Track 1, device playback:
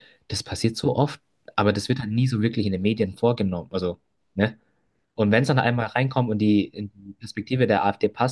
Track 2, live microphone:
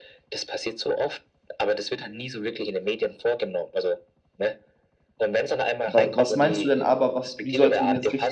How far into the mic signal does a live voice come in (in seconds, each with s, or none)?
5.9 s